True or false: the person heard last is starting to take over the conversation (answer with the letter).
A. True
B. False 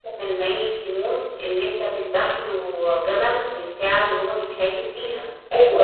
A